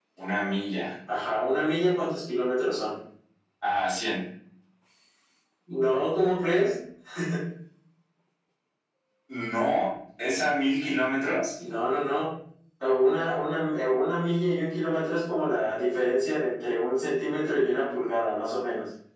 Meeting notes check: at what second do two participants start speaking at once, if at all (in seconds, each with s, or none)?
none